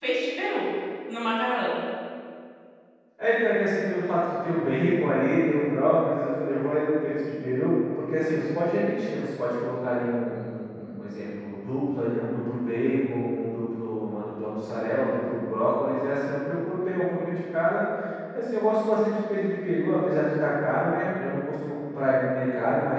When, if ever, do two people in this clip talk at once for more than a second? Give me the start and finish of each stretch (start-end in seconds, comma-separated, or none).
none